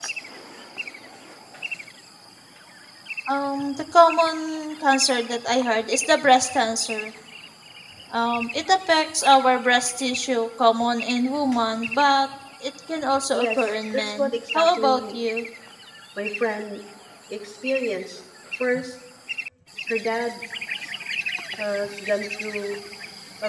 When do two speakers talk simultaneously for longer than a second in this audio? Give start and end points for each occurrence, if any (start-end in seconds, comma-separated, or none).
13.3-15.2